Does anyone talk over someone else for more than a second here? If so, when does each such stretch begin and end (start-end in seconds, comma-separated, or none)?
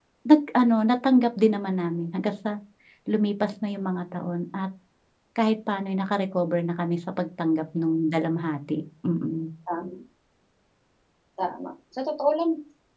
none